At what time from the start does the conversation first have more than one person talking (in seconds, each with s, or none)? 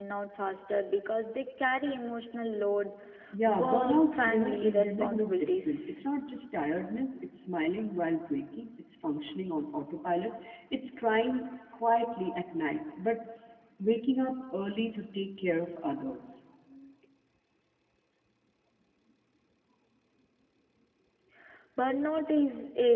3.5 s